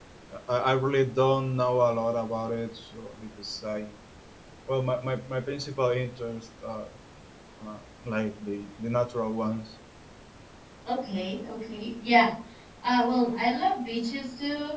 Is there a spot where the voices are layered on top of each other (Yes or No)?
No